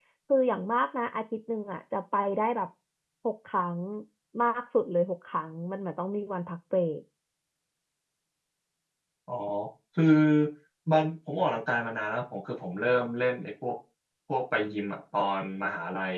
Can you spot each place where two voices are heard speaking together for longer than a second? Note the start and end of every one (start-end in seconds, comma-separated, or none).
none